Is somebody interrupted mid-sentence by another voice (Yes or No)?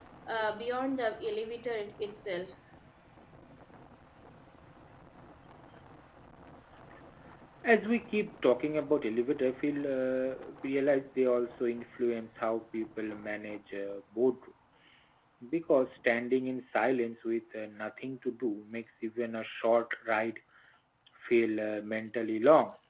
No